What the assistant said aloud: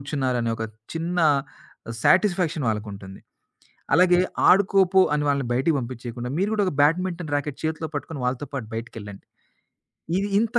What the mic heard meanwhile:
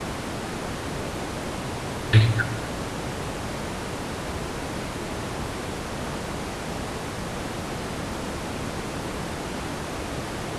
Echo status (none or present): none